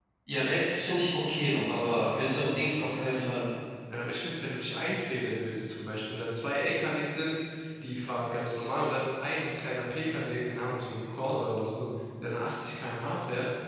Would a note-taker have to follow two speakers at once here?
No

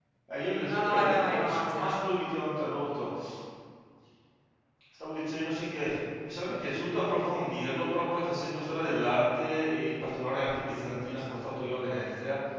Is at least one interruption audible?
Yes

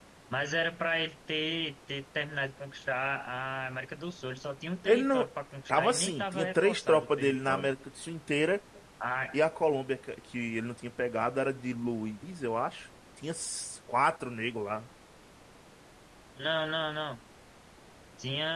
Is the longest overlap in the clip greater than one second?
Yes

